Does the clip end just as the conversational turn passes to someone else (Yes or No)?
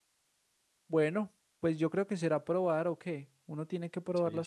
Yes